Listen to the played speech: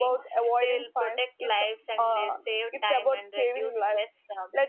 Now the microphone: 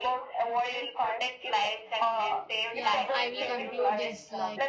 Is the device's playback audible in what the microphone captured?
Yes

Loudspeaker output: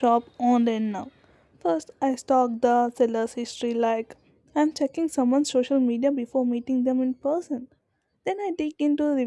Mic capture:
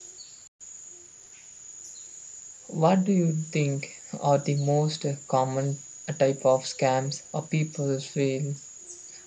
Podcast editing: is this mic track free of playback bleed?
Yes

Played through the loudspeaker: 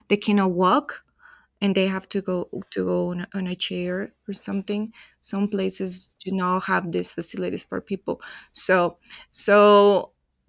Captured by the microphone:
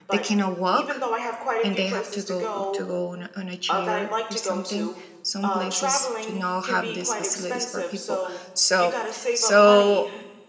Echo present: Yes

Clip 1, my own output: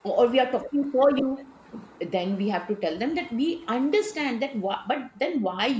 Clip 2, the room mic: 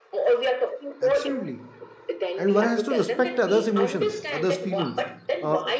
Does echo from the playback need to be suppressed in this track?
Yes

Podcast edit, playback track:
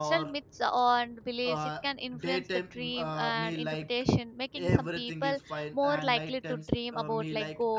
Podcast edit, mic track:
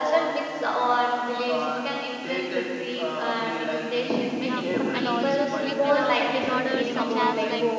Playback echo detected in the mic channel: Yes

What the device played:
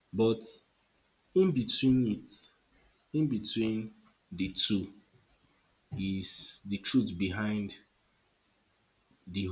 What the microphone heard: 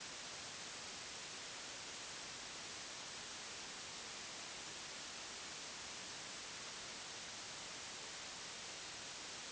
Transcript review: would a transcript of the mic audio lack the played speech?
Yes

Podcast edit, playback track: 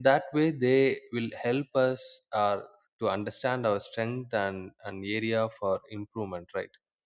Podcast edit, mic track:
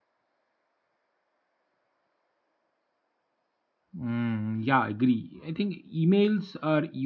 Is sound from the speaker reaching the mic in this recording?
No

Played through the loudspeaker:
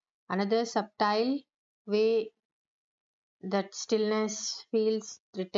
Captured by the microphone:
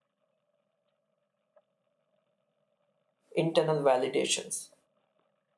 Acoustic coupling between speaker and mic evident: No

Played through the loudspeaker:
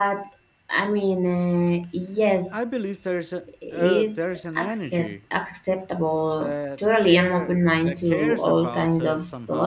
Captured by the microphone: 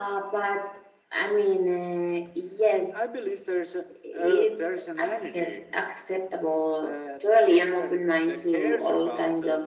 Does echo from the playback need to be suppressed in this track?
Yes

